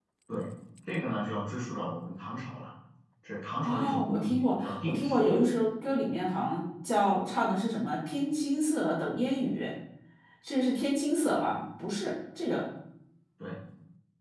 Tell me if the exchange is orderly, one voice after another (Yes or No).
No